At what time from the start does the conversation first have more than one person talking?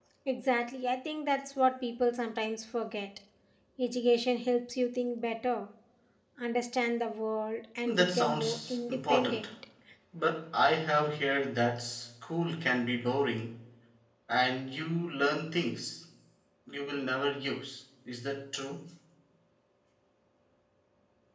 7.8 s

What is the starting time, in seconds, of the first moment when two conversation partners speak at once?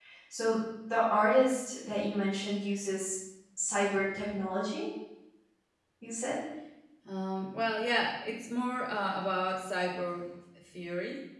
none

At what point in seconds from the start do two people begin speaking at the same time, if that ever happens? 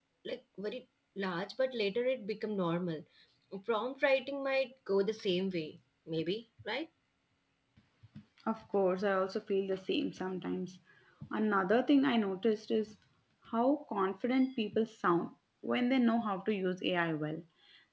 none

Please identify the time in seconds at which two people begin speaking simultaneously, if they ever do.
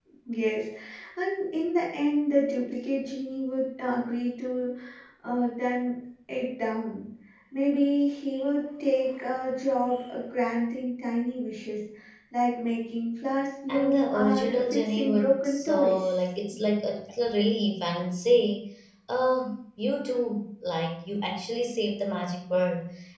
13.7 s

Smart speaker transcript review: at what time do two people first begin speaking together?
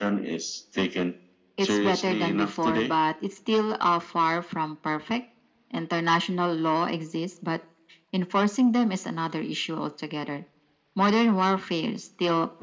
1.6 s

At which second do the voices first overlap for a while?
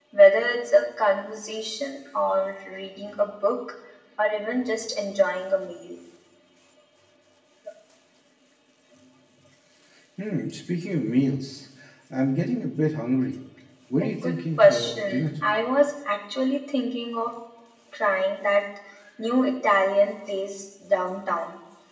14.0 s

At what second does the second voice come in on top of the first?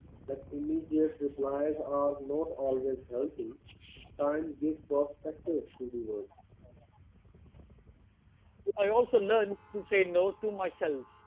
none

